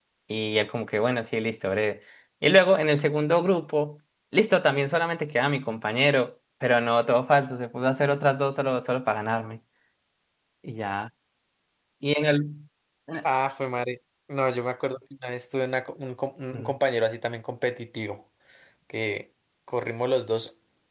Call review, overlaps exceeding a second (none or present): none